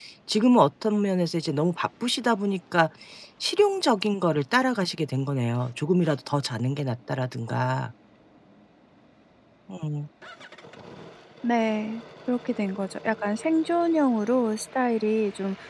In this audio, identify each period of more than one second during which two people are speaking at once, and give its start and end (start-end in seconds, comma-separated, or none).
none